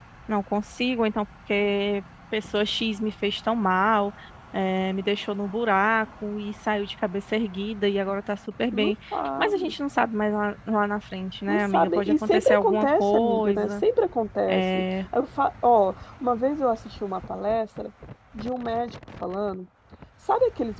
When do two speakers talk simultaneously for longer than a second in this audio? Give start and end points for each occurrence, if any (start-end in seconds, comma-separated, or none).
11.5-13.7